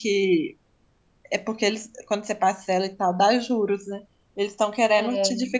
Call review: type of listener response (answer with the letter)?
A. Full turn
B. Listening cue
B